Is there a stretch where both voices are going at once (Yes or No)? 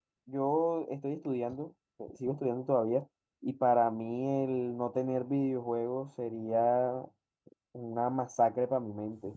No